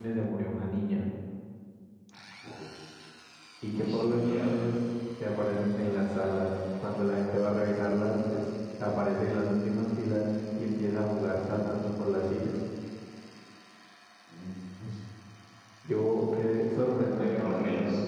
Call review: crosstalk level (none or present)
present